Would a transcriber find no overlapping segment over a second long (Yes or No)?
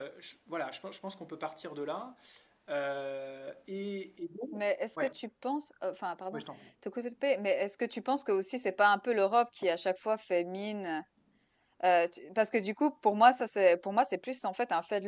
Yes